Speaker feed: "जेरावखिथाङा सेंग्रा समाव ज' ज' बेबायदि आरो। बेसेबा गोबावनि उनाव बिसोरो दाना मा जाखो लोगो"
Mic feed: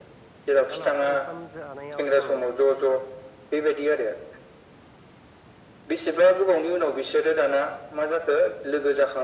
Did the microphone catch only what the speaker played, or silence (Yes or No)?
No